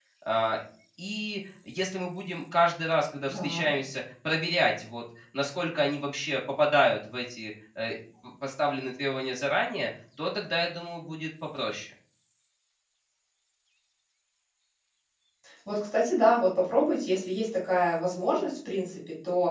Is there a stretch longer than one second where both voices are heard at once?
No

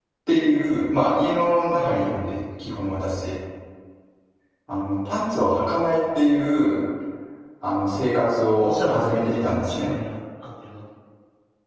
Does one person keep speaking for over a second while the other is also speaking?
Yes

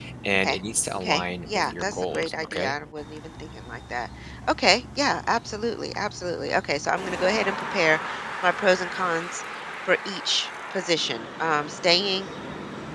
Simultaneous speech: Yes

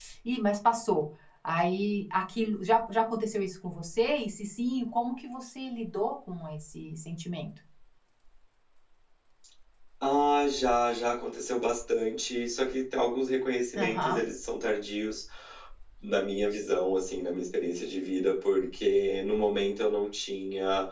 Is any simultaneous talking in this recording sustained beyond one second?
No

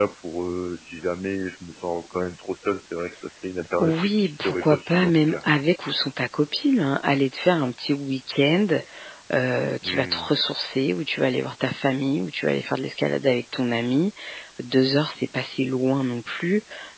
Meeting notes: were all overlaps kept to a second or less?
No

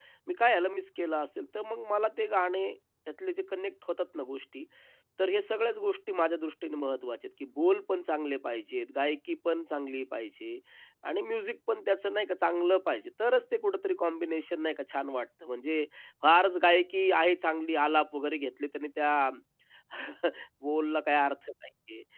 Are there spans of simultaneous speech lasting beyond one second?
No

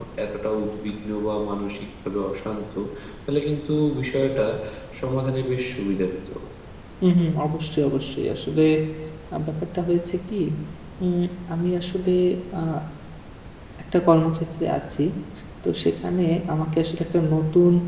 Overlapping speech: No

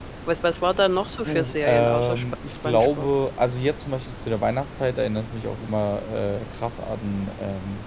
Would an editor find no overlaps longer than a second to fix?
No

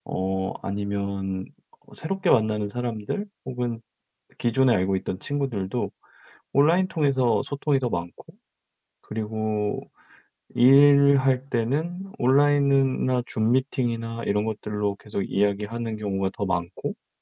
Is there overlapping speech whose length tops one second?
No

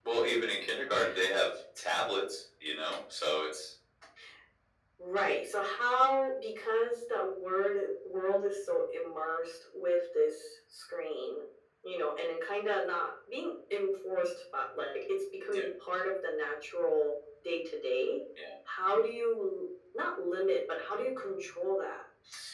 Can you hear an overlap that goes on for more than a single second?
No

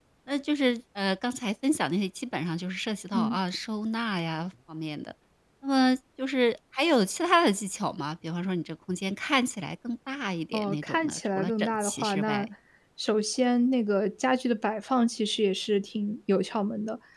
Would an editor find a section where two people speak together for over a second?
Yes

